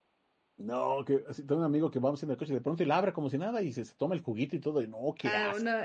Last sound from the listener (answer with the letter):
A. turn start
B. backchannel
A